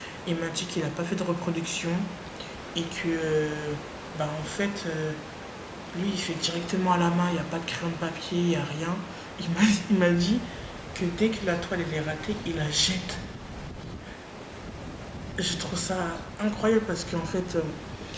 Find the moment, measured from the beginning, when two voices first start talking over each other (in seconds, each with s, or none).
none